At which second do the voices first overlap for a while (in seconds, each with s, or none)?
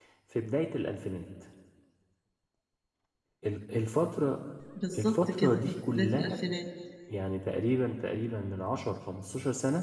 5.0 s